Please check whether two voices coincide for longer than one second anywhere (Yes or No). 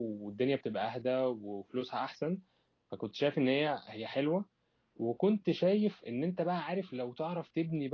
No